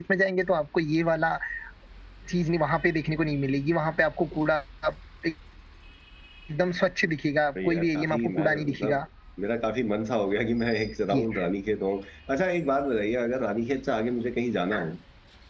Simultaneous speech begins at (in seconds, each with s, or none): 7.7 s